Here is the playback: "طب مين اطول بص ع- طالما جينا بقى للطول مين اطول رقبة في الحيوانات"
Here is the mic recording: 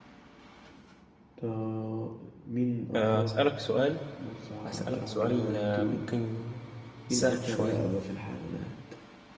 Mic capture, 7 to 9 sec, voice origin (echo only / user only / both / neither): both